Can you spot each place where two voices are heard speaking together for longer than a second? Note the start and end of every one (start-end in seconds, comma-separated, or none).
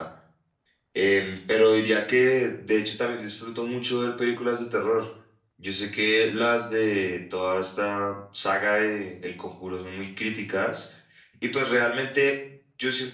none